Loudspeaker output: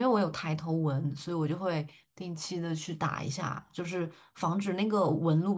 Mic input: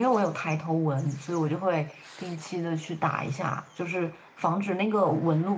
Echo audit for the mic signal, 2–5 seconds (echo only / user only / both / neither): echo only